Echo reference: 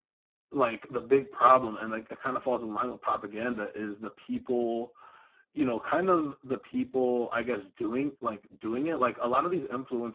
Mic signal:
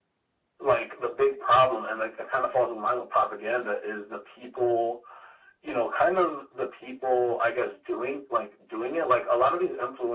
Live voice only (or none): none